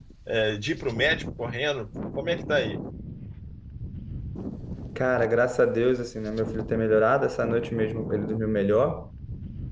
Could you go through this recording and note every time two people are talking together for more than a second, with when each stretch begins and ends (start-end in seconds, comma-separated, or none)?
none